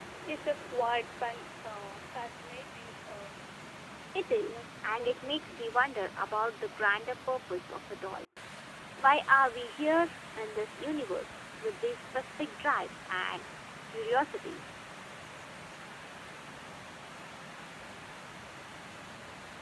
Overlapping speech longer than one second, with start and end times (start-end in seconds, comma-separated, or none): 4.4-5.6